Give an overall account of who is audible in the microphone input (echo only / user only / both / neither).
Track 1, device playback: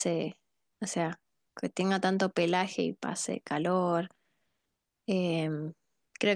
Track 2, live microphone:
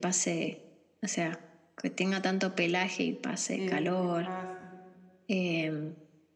both